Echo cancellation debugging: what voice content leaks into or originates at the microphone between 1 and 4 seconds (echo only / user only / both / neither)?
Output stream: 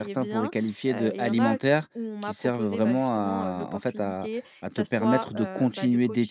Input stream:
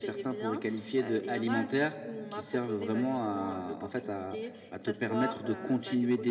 echo only